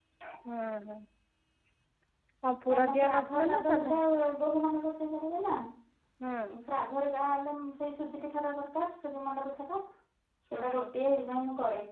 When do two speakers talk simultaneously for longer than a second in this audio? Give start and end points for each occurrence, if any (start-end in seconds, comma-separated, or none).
2.7-3.9